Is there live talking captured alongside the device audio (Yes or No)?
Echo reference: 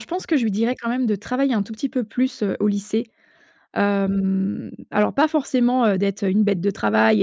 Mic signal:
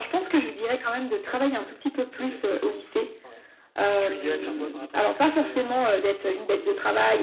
Yes